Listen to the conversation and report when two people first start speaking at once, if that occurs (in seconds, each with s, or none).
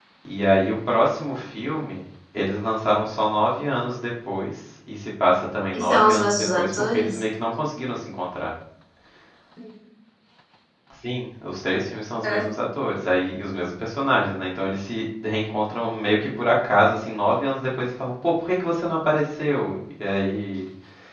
5.7 s